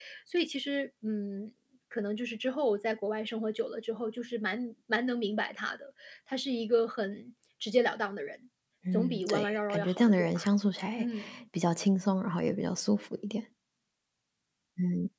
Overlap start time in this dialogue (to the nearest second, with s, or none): 9 s